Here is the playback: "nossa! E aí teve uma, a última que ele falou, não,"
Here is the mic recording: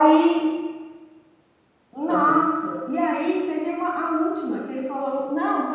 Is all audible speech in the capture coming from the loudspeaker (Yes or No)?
No